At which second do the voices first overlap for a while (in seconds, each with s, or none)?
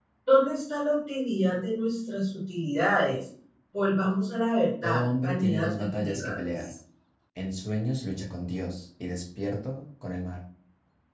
4.8 s